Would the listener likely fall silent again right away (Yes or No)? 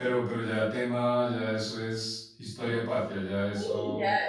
No